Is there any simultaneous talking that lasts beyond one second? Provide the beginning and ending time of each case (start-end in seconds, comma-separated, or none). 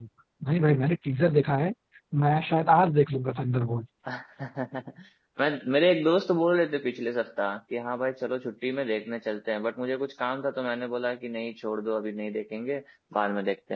none